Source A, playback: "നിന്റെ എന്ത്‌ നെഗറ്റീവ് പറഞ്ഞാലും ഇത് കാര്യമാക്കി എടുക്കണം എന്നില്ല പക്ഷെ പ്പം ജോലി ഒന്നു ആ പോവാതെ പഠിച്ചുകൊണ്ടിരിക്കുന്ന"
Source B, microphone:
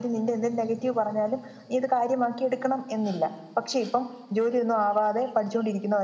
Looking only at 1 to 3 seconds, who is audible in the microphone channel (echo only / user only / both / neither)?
echo only